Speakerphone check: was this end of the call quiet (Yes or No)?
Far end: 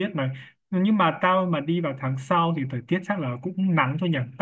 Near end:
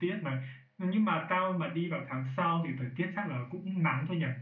Yes